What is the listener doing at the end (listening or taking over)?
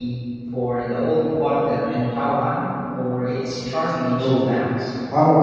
taking over